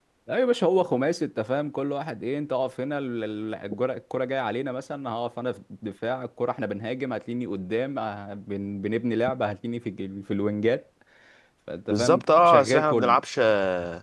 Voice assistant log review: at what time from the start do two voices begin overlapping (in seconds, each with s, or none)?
11.9 s